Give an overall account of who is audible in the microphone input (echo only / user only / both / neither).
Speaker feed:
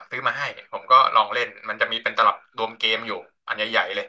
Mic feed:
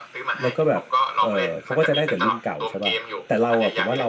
both